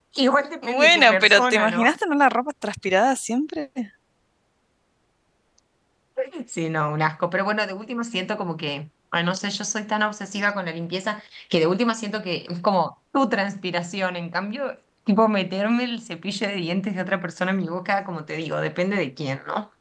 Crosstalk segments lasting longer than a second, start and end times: 0.6-1.9

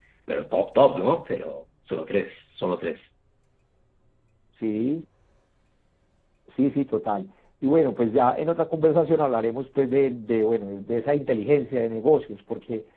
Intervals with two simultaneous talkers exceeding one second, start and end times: none

